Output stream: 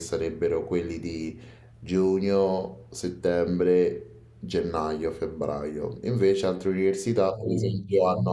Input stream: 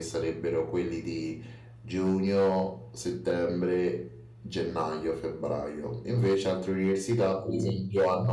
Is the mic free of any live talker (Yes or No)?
Yes